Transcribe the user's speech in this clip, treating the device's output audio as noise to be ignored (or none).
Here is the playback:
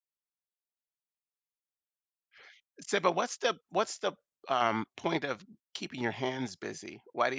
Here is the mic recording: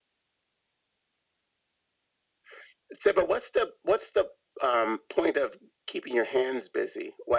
none